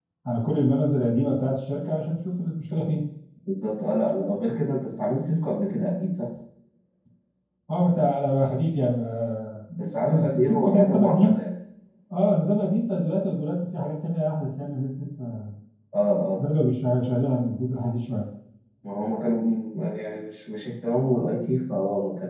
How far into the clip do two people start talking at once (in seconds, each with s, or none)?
10.1 s